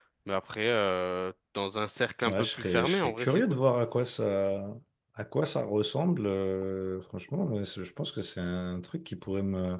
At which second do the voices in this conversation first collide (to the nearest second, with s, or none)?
2 s